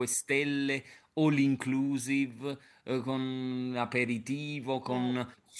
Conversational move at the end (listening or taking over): listening